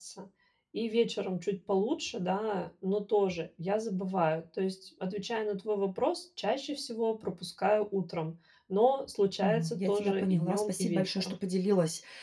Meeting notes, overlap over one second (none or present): present